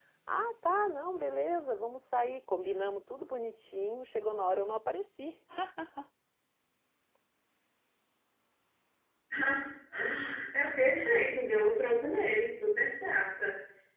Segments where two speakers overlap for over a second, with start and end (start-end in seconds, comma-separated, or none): none